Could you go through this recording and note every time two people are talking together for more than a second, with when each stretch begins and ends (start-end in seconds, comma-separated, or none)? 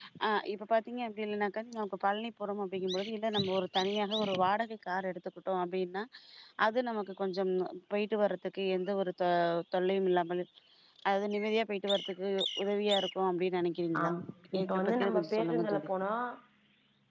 14.6-15.9